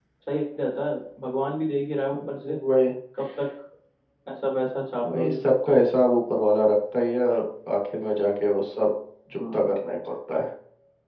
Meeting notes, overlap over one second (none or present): none